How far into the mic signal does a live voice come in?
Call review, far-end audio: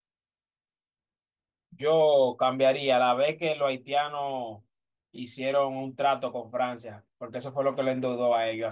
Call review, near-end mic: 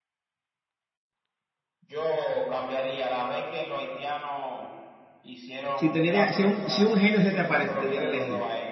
6 s

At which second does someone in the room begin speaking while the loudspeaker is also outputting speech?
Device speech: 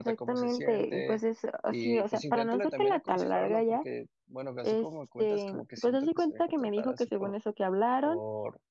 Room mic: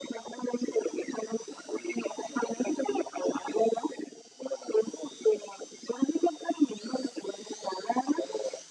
none

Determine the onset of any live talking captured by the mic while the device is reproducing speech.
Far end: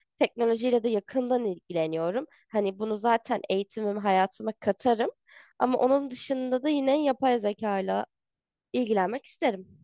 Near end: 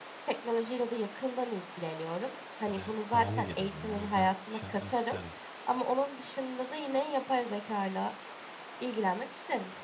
3 s

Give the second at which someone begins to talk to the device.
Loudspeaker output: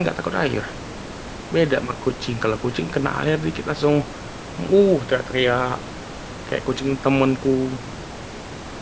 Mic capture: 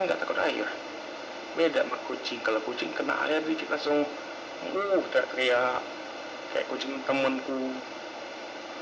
none

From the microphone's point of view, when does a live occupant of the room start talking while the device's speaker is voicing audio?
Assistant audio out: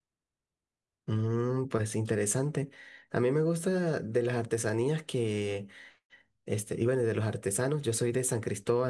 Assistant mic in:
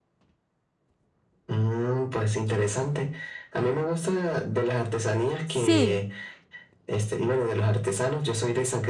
5 s

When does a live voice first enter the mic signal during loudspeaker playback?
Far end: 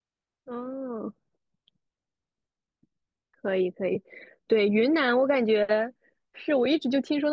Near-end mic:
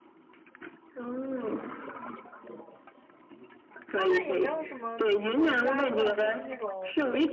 4 s

